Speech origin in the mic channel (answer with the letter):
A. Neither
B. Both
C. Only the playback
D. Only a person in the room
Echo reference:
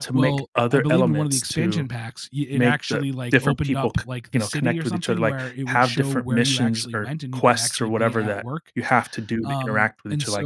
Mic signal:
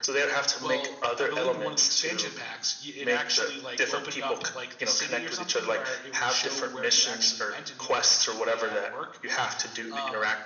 C